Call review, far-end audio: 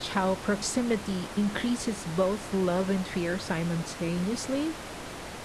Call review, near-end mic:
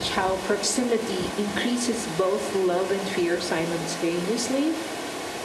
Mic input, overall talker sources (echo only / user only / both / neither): echo only